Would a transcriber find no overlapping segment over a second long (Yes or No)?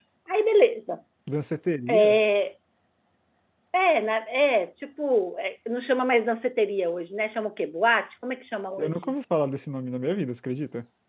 Yes